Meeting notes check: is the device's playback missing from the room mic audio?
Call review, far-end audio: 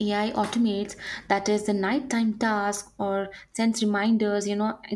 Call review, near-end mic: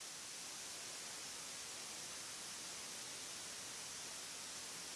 Yes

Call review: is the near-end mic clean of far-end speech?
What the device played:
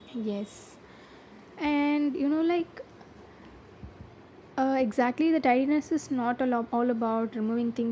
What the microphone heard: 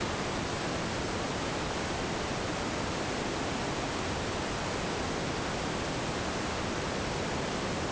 Yes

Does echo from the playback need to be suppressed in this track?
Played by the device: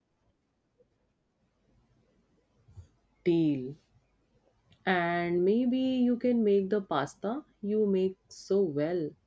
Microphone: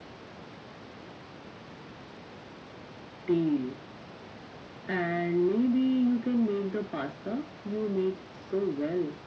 Yes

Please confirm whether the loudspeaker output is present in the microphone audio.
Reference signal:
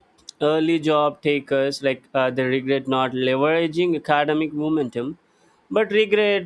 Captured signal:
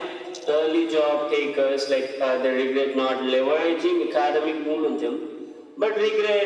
Yes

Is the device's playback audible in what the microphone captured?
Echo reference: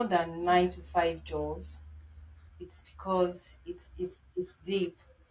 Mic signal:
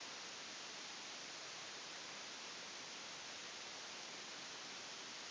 No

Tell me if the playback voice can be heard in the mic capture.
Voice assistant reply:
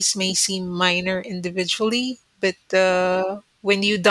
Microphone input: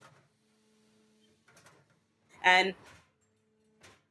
No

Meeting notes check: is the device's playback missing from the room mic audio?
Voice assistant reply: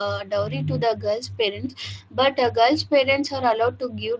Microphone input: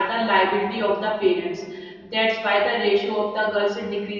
Yes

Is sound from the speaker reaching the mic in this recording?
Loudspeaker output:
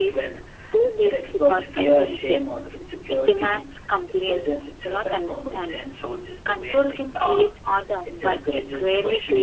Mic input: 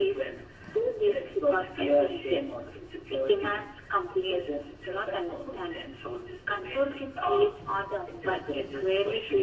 Yes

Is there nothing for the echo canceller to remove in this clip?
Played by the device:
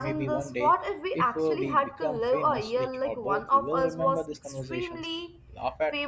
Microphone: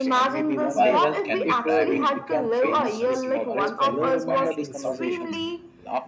No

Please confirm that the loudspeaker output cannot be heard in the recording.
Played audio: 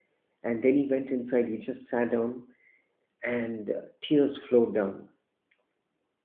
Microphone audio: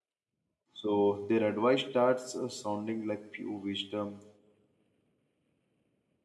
Yes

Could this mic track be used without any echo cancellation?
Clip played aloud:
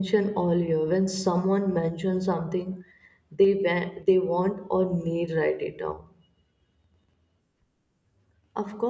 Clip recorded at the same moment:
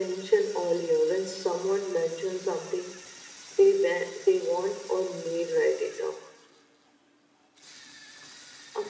No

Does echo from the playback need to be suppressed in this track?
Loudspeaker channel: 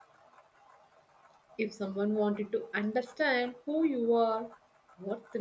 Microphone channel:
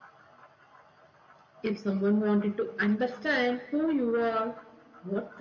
Yes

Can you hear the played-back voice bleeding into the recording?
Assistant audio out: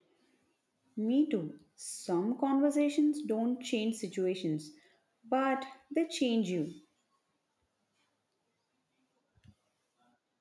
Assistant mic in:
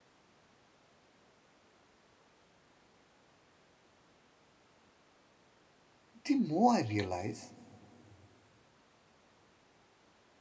No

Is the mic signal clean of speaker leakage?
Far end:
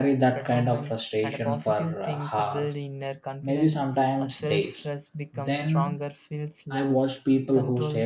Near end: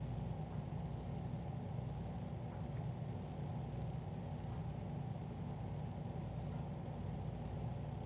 Yes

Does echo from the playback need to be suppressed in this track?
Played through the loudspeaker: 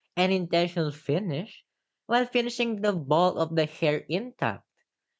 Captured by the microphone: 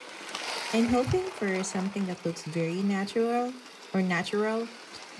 No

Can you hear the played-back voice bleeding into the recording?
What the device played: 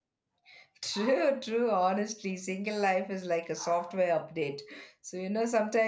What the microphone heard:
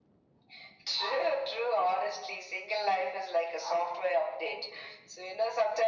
Yes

